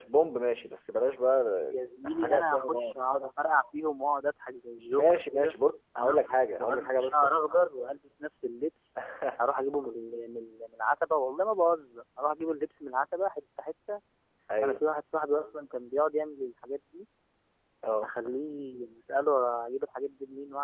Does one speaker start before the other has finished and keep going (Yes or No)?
Yes